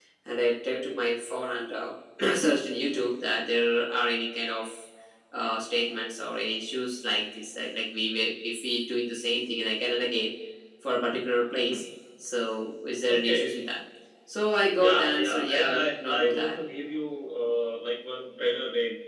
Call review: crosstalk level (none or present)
present